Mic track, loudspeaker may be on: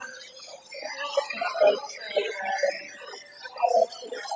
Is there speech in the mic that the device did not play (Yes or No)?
No